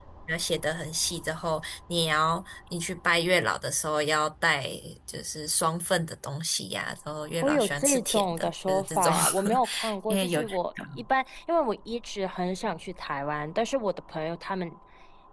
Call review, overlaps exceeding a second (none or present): present